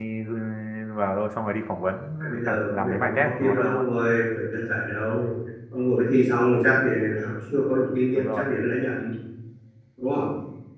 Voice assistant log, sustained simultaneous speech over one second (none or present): present